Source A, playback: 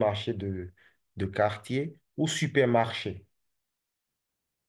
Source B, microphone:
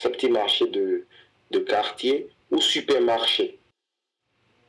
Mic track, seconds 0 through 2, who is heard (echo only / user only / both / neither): echo only